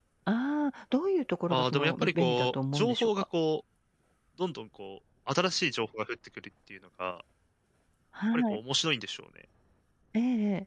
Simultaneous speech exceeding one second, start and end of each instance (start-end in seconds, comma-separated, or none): 1.5-3.1